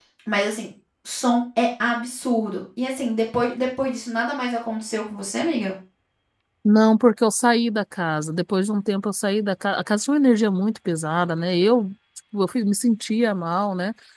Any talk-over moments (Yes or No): No